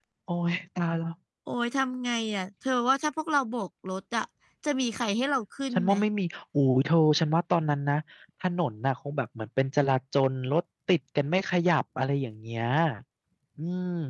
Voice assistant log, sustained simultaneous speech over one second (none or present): none